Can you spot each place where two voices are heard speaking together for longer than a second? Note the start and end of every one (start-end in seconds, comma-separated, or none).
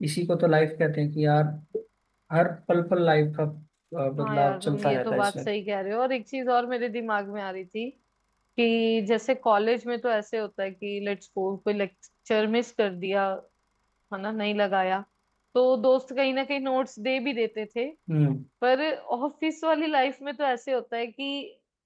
4.2-5.5